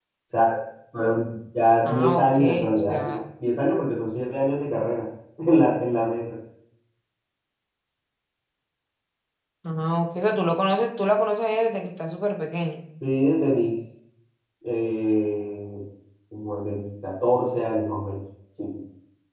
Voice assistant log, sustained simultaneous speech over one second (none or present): present